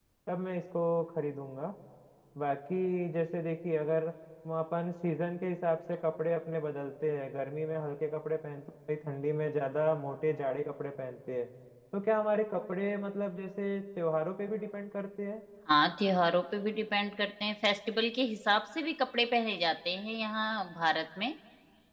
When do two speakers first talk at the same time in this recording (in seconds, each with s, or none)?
none